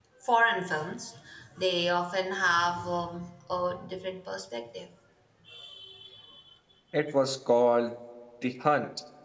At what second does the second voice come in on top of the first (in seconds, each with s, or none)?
none